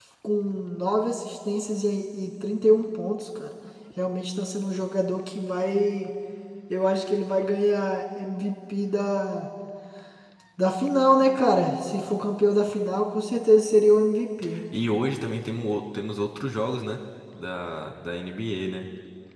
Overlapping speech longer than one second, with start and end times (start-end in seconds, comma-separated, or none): none